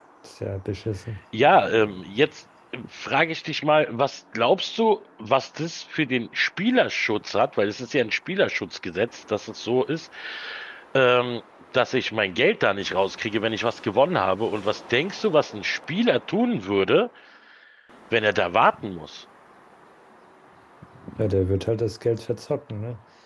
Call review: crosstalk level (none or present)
none